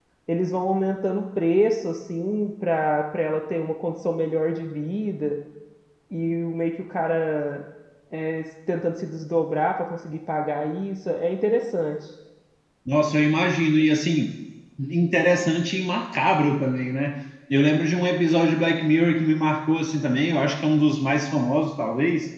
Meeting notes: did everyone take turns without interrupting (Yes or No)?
Yes